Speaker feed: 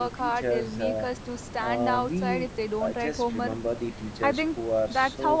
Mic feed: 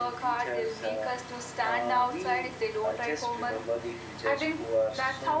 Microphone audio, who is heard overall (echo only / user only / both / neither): echo only